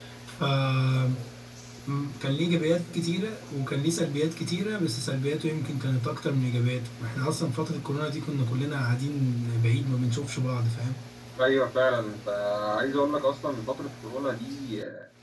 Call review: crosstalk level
none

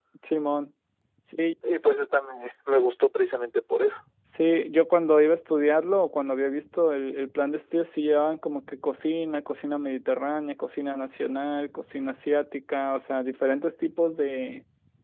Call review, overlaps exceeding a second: none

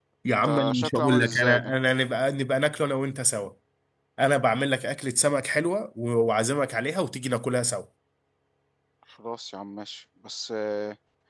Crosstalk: present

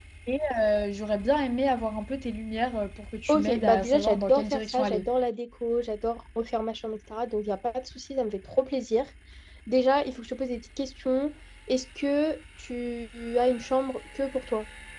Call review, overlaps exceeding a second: present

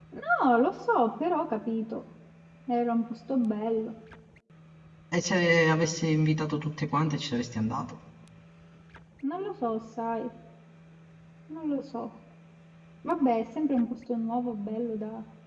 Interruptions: none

